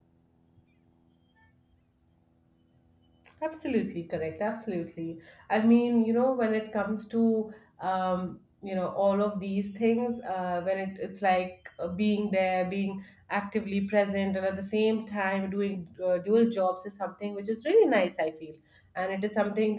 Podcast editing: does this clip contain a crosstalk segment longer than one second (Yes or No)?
No